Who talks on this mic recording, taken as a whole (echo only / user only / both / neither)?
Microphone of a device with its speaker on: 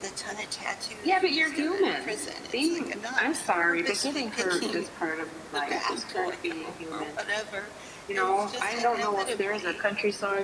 echo only